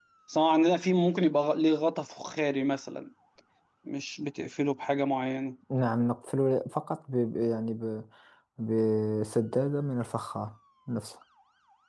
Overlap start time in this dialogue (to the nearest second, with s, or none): none